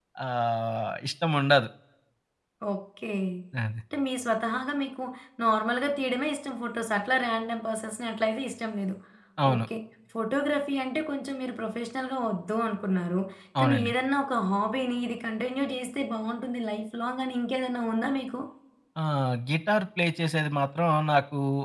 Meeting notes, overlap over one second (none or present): none